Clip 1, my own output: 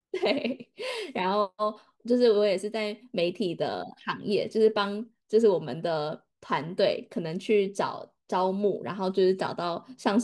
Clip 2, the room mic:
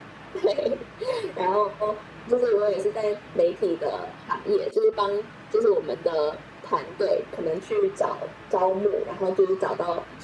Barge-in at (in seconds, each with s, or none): none